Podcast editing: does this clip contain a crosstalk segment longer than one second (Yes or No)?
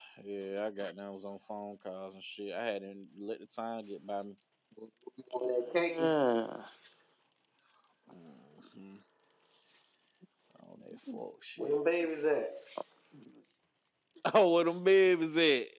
No